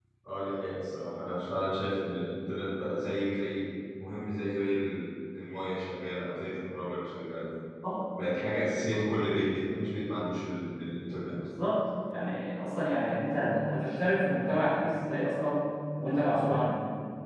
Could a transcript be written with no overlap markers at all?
Yes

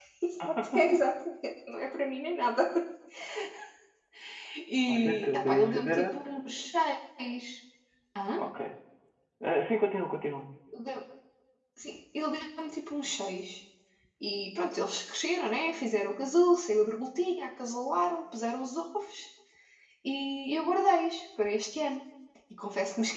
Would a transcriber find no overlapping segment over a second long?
No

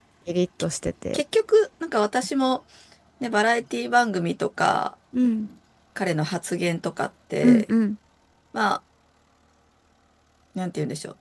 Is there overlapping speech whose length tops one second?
No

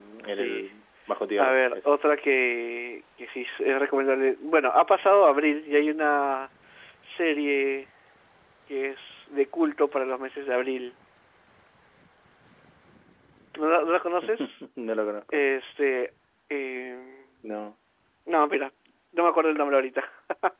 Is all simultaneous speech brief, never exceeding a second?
Yes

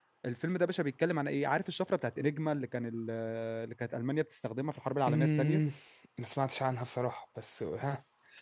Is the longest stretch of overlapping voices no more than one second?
Yes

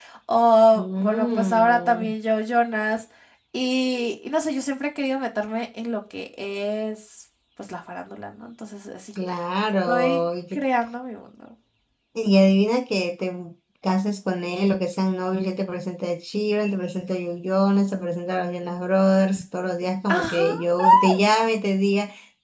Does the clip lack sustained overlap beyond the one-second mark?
No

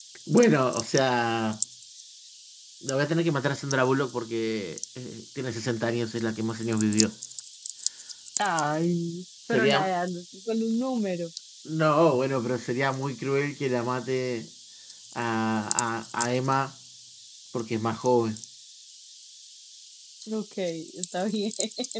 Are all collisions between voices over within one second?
Yes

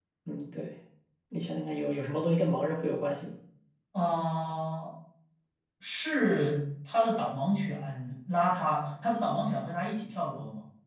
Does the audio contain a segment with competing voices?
No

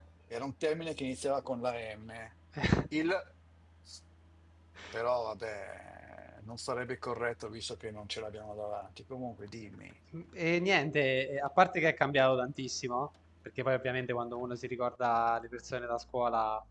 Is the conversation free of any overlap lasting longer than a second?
Yes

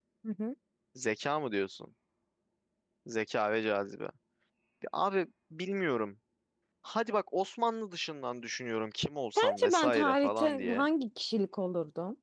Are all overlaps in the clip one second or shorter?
No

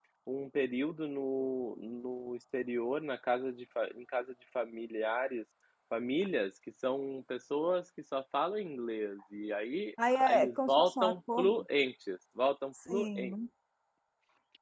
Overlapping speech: Yes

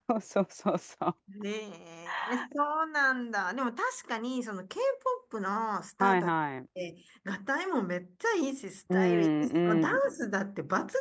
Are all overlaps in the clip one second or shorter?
No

